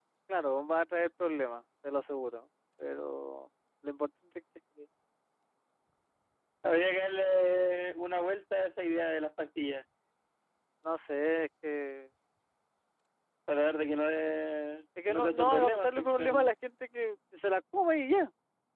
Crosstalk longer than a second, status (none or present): present